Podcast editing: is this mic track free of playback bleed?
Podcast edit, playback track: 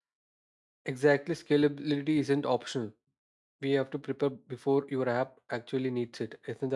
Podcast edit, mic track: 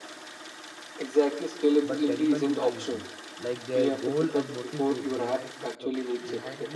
No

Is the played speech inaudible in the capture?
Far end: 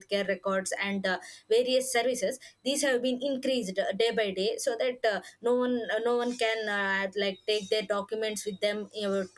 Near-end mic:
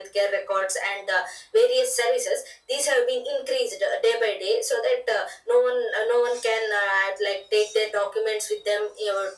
No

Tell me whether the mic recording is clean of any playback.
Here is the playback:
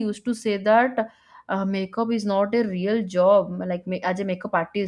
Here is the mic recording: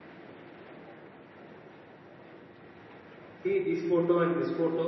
Yes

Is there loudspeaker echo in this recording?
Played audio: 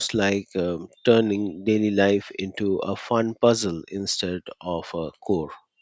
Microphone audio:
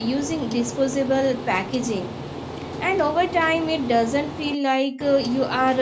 No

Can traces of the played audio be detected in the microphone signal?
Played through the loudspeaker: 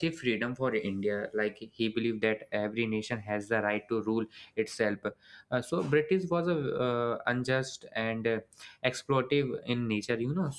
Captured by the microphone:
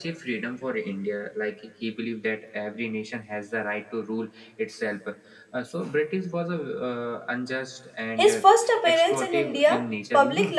Yes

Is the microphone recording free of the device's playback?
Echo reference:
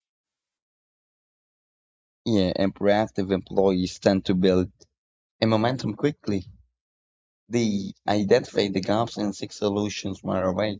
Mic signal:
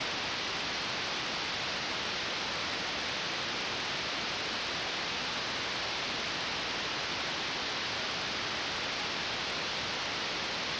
Yes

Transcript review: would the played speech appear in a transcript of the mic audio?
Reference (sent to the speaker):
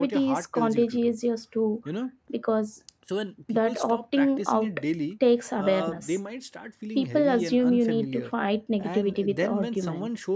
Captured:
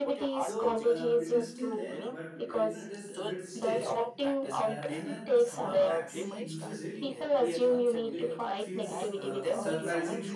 Yes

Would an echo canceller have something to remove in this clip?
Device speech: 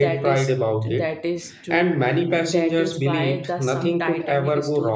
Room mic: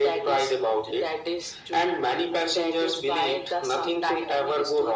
Yes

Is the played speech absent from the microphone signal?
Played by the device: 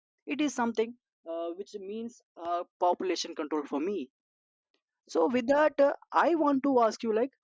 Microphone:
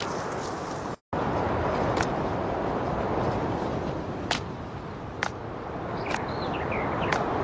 Yes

